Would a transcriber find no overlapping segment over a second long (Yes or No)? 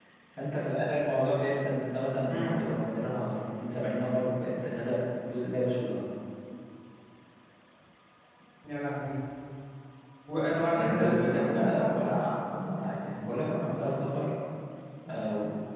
No